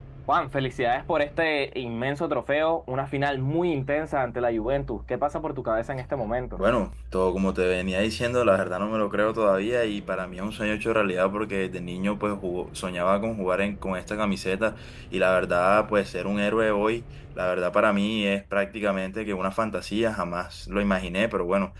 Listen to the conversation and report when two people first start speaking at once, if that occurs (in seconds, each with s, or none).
none